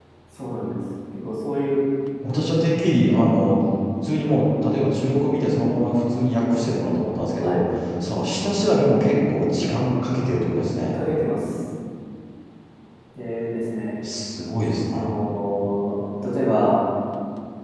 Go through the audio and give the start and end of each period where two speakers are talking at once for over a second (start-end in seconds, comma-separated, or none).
none